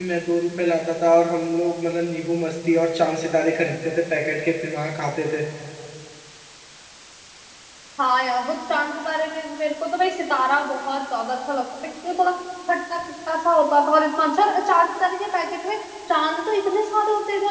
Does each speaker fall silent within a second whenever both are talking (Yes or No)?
Yes